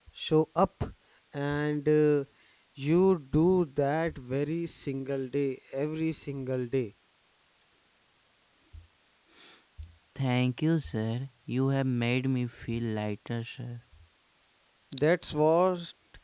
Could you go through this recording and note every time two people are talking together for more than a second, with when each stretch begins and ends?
none

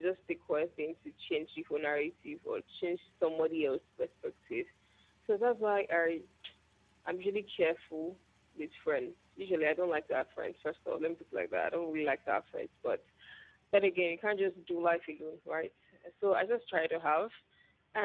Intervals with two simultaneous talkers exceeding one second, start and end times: none

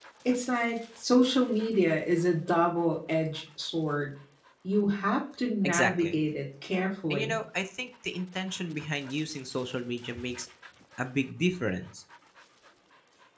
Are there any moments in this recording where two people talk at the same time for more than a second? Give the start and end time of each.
none

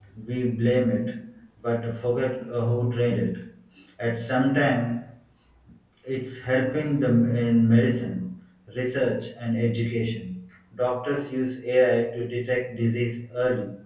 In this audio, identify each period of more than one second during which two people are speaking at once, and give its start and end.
none

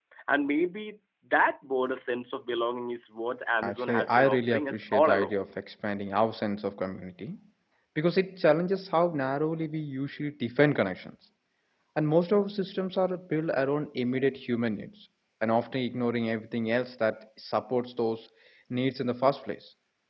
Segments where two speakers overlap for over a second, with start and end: 3.6-5.3

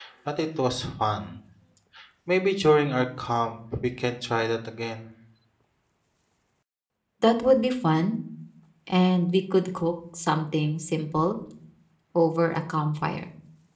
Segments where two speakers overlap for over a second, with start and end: none

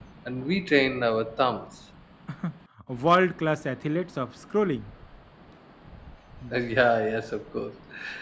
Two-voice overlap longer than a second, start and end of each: none

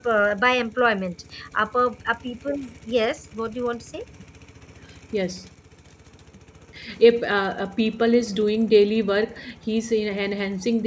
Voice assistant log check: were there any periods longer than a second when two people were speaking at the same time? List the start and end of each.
none

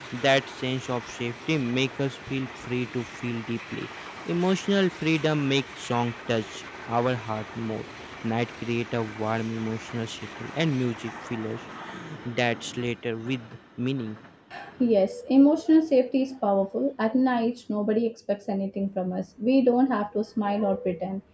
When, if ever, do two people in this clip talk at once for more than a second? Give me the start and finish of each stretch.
none

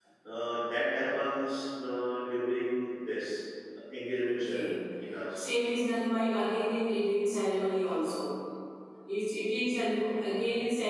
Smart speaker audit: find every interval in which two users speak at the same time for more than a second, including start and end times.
none

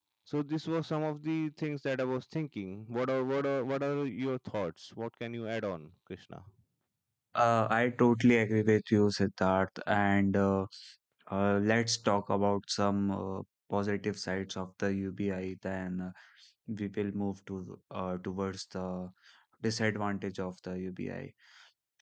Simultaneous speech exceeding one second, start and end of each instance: none

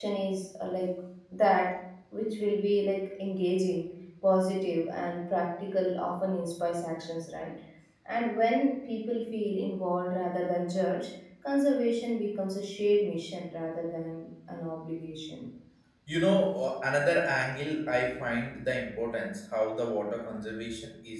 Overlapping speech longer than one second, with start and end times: none

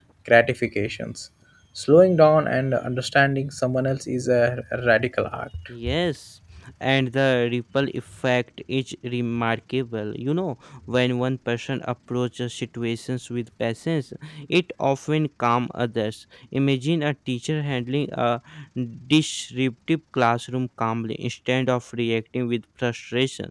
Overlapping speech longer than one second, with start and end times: none

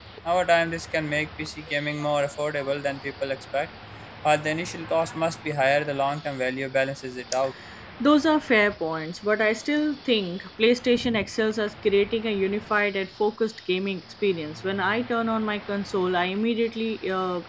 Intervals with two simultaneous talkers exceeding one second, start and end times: none

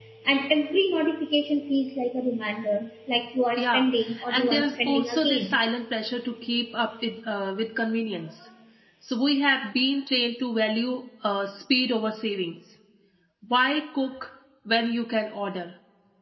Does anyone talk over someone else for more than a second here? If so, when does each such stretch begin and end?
4.3-5.6

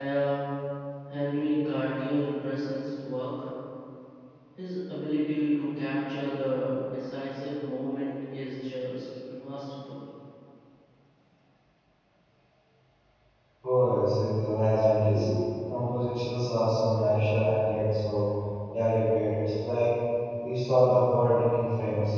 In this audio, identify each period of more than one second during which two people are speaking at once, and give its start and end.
none

